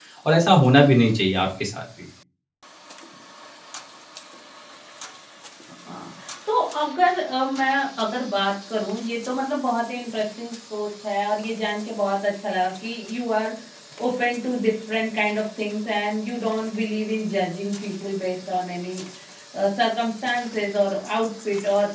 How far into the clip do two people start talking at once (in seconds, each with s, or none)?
none